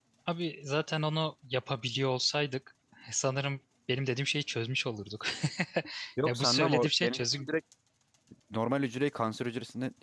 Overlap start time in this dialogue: 6.2 s

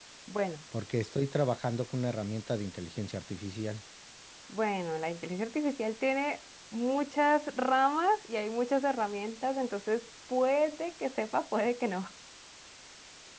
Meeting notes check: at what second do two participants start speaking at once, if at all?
none

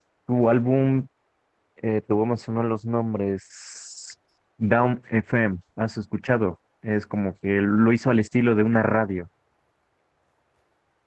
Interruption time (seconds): none

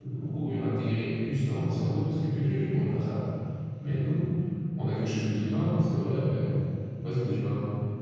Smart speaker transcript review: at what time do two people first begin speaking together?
none

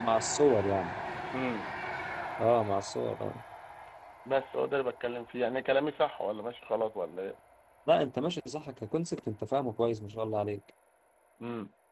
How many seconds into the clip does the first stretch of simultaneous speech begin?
none

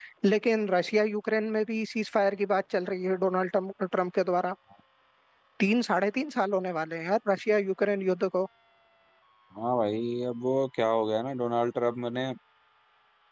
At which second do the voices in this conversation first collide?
none

